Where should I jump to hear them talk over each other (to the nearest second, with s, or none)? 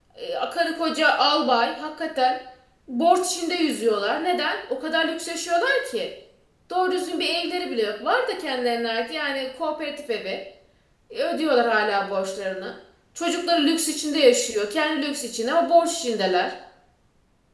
none